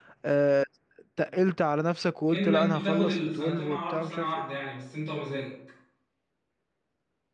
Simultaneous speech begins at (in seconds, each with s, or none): 2.3 s